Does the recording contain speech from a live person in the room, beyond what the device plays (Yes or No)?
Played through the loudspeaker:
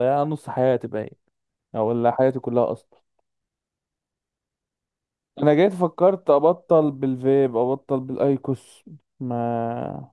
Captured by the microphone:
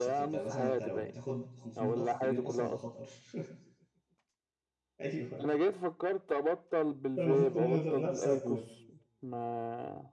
Yes